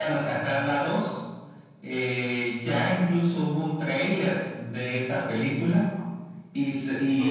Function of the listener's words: listening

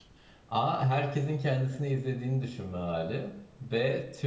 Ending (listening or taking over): listening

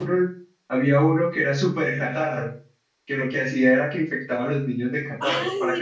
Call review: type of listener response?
taking over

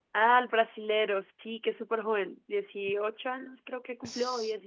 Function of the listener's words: taking over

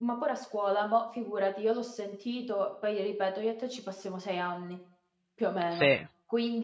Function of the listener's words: listening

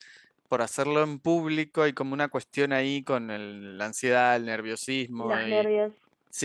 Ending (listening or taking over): listening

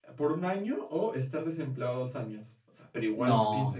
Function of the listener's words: listening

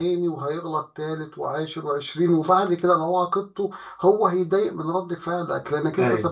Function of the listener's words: listening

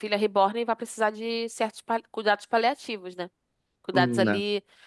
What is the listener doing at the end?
listening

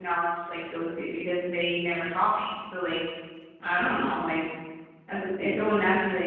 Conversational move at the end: listening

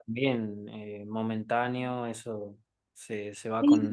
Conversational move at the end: taking over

